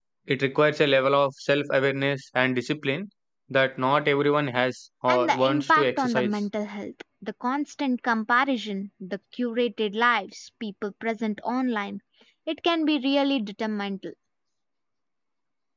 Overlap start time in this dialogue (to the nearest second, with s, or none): 5 s